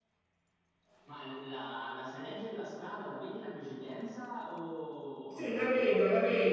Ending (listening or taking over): taking over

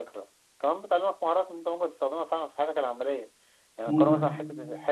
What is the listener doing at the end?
listening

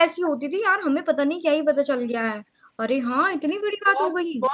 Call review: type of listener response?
taking over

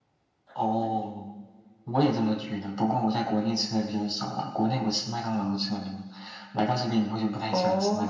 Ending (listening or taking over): taking over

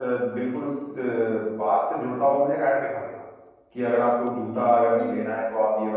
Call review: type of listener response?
listening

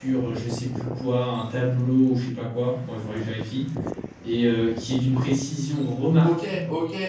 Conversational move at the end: taking over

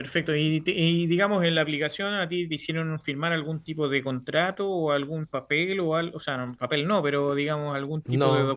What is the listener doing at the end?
listening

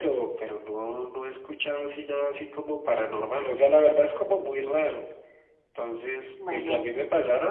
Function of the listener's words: listening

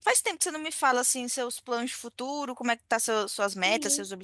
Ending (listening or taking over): taking over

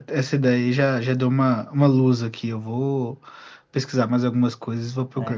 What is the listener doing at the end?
taking over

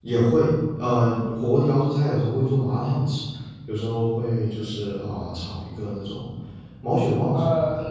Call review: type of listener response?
taking over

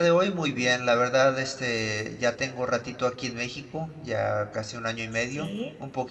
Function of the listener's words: listening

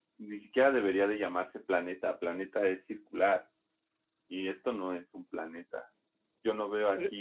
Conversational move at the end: listening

